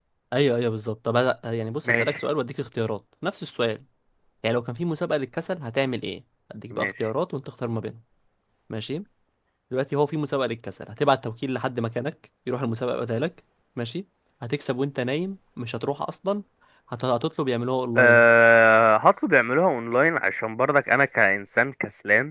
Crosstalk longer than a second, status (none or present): none